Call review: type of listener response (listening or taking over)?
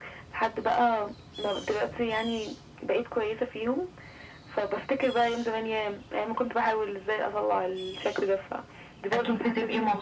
taking over